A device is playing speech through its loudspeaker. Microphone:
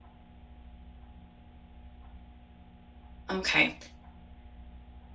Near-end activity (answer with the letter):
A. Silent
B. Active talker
B